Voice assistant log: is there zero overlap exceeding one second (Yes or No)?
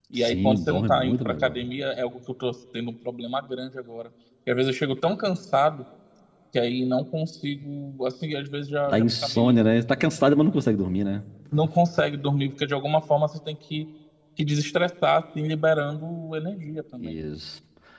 No